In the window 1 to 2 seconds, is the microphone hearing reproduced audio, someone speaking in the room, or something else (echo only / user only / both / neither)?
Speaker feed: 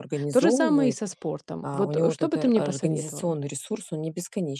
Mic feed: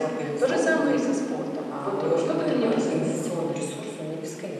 echo only